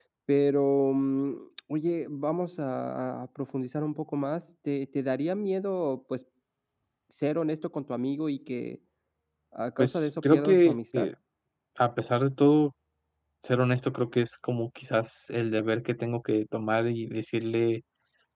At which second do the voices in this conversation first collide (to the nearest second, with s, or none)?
10 s